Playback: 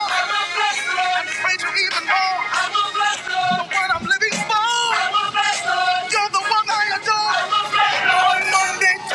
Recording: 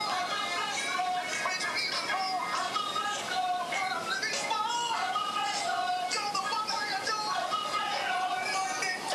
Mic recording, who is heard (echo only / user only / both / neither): echo only